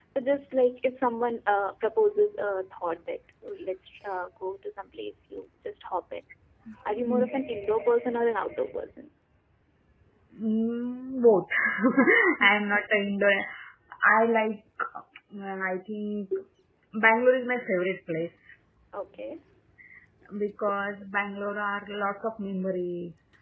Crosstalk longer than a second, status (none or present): none